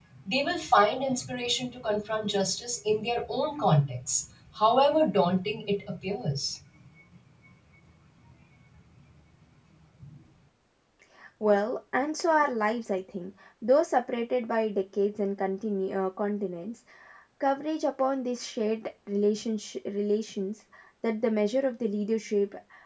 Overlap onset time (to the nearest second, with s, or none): none